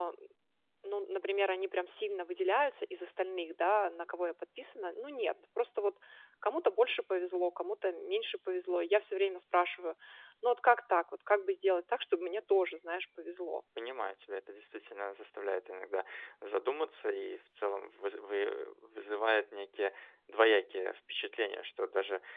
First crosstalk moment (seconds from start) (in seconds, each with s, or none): none